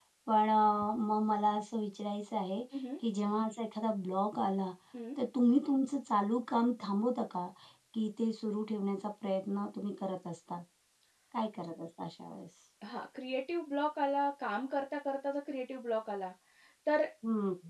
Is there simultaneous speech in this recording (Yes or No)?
No